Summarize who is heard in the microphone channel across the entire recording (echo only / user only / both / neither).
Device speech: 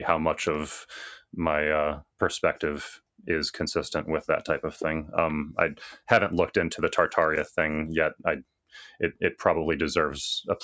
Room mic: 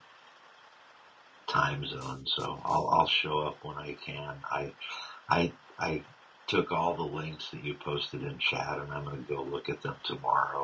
user only